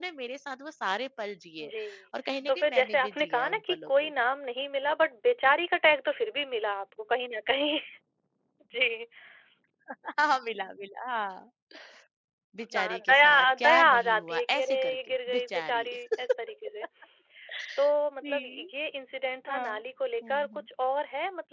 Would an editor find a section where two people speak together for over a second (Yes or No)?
Yes